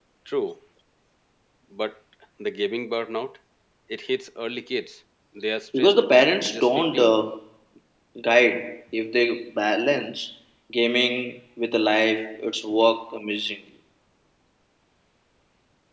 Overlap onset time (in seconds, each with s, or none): 5.7 s